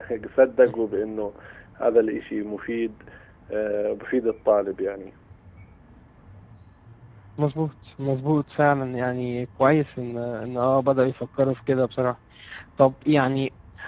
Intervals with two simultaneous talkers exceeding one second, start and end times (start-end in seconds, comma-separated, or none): none